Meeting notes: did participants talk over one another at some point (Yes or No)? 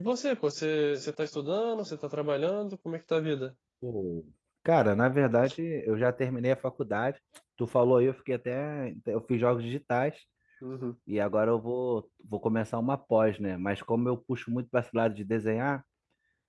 No